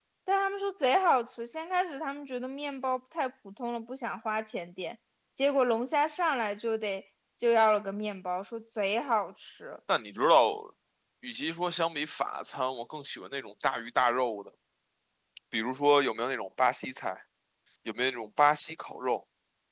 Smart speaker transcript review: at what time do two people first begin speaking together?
none

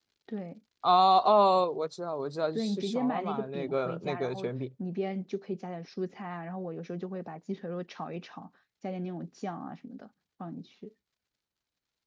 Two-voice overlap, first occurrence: 3 s

